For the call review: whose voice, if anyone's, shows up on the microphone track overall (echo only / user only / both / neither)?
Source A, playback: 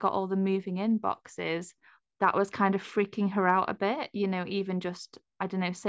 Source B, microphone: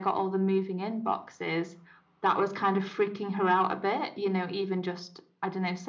echo only